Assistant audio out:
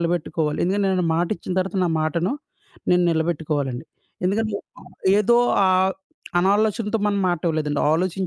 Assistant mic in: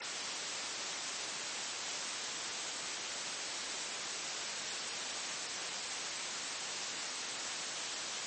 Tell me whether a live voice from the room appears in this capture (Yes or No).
No